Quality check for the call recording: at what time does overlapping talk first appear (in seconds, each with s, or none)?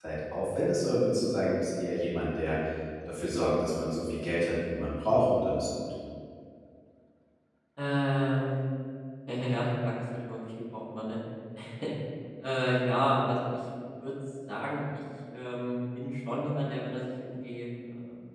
none